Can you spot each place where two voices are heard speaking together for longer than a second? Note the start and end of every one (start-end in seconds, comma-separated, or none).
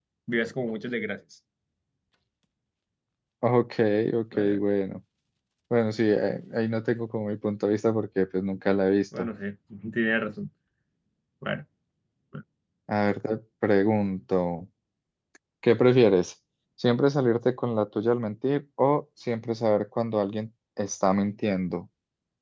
none